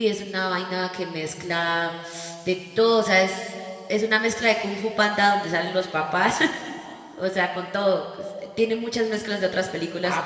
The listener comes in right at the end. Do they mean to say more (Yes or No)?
Yes